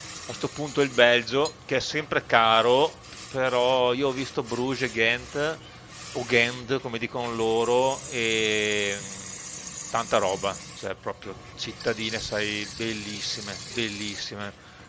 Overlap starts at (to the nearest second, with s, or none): none